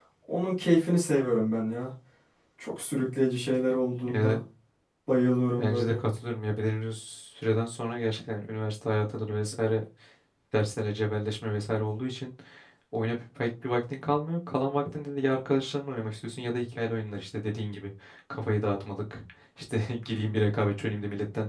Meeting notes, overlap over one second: none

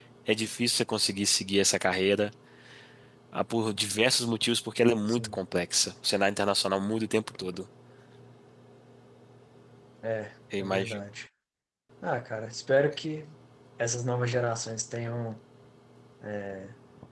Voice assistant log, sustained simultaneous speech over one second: none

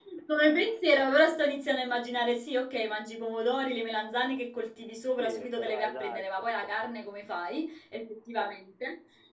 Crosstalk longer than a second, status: present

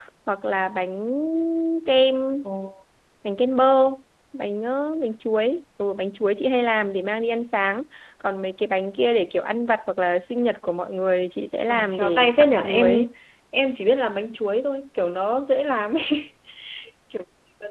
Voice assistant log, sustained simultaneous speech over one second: present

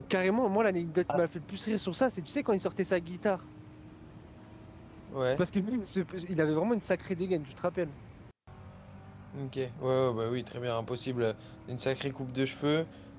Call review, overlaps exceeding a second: none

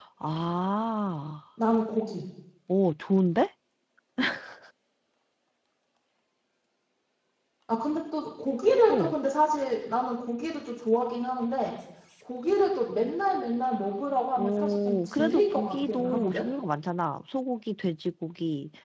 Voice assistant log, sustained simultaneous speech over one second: present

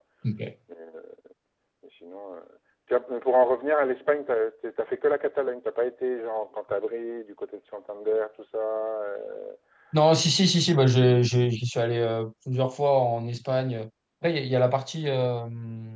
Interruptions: none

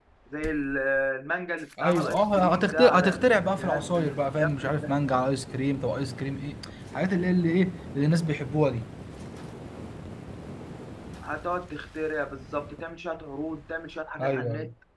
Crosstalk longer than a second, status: present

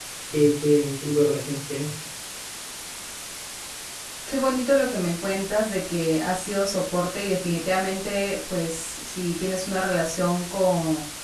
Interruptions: none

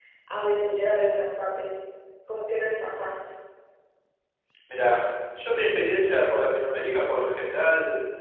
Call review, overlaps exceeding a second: none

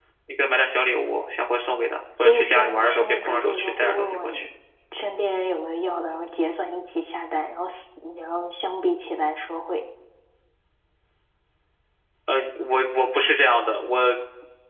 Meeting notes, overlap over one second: present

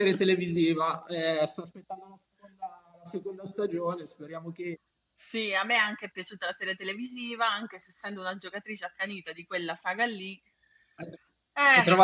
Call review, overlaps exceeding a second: none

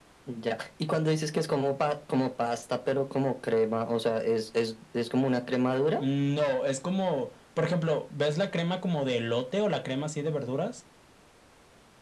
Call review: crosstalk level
none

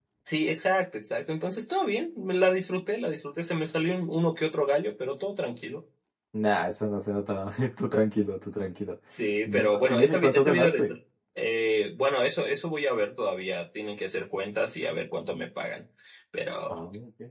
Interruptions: present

